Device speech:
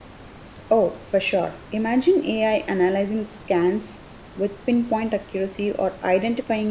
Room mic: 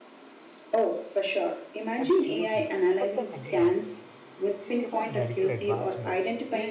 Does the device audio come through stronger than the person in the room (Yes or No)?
Yes